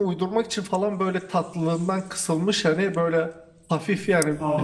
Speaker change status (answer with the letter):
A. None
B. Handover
A